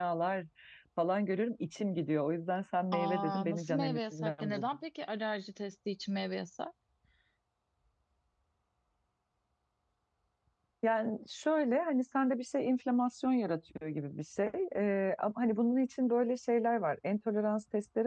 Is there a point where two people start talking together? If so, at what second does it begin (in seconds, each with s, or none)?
2.9 s